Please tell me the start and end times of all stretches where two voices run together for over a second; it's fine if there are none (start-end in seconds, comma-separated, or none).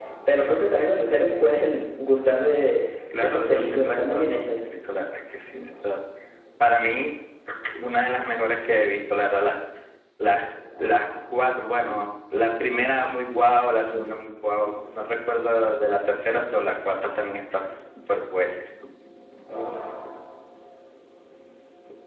2.8-4.4